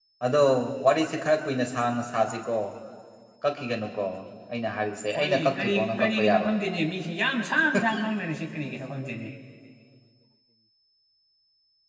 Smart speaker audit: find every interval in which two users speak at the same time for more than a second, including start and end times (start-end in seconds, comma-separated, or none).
5.2-6.5